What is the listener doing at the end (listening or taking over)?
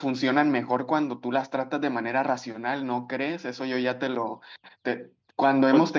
listening